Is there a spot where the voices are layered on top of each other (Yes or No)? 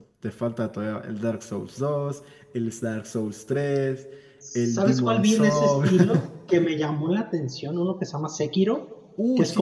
Yes